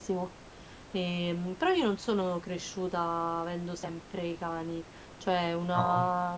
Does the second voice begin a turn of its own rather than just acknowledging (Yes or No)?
No